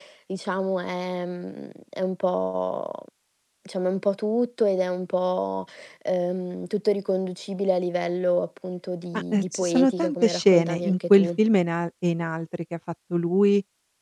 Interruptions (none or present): present